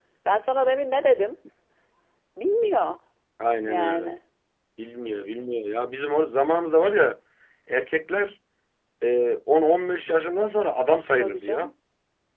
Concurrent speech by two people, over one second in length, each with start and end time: none

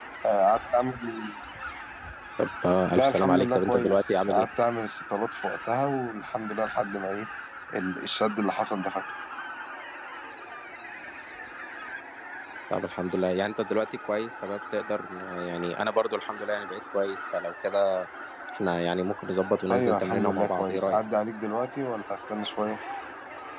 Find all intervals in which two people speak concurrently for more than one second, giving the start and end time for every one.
2.9-4.5, 19.7-21.0

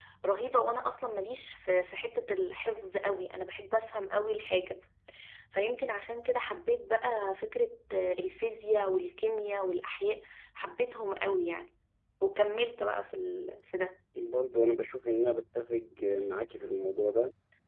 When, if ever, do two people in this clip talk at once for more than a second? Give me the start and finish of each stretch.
none

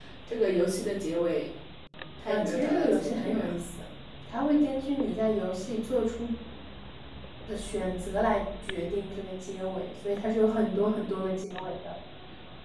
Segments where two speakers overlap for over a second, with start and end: 2.2-3.5

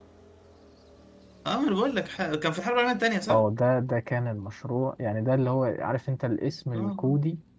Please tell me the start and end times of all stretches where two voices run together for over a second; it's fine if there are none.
none

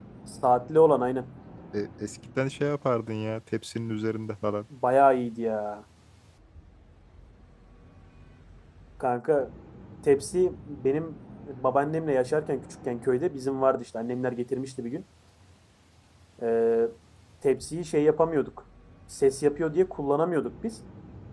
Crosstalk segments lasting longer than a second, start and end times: none

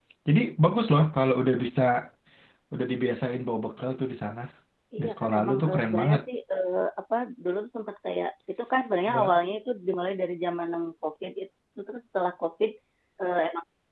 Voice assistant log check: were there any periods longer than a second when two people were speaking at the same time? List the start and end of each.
5.0-6.2

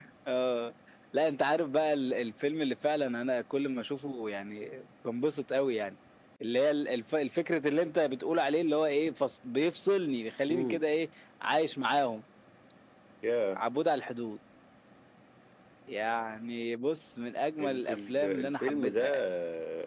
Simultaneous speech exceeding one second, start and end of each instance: 17.6-19.0

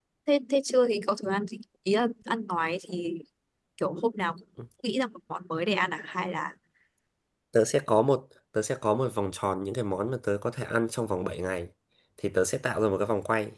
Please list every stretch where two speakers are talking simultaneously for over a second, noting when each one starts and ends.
none

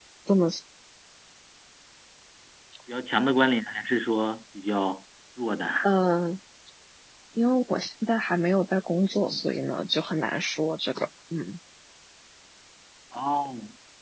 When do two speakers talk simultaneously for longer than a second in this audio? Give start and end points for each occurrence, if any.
none

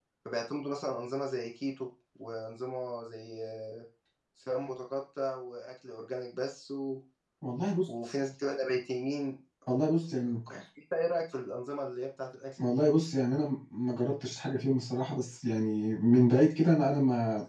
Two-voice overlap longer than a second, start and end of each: none

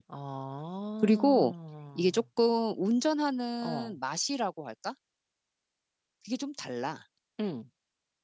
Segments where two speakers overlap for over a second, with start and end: none

